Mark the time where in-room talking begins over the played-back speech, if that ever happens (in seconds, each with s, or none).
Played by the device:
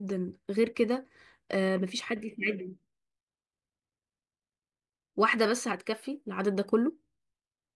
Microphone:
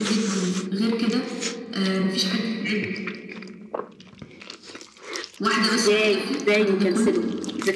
5.6 s